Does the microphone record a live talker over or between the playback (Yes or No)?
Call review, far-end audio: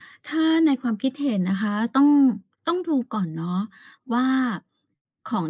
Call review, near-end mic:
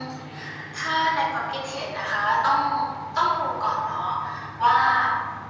No